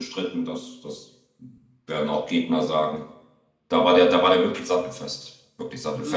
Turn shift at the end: No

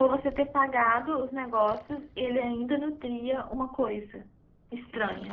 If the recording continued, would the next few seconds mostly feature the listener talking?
Yes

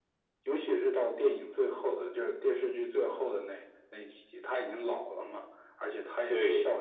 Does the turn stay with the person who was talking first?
Yes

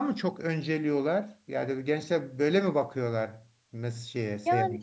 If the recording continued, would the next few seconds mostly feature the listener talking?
Yes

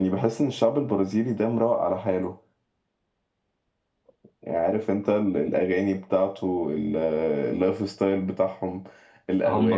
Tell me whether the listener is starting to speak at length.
Yes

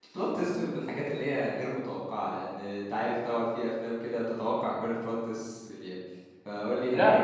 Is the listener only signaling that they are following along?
No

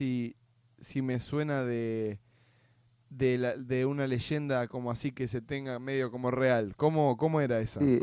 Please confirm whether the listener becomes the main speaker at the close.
Yes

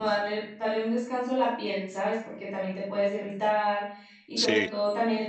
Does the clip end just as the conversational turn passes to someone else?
No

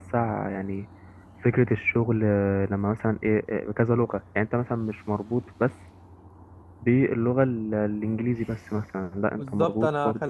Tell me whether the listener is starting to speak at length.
Yes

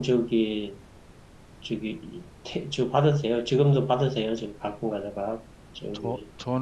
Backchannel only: No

